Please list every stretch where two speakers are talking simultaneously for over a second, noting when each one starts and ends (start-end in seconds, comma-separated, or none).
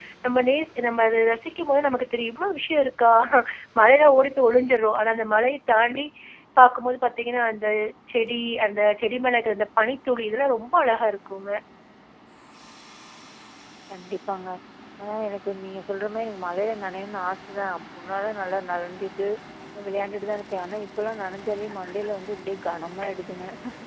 none